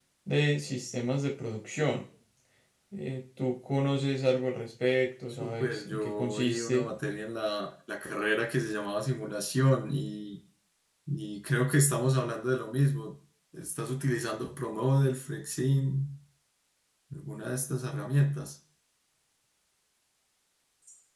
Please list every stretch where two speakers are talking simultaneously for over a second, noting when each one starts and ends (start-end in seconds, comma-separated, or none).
5.3-6.9